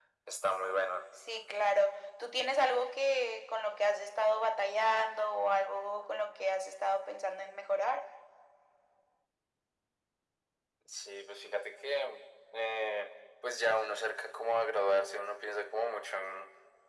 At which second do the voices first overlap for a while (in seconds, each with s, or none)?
none